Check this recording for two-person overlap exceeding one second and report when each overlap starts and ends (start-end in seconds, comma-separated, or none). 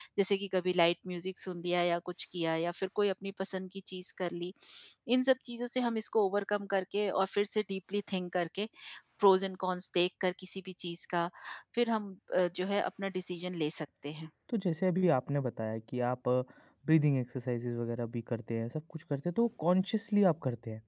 none